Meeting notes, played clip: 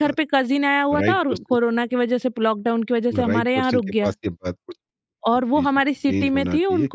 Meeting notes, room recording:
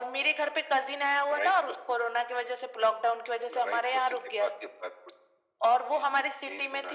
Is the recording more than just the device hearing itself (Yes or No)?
No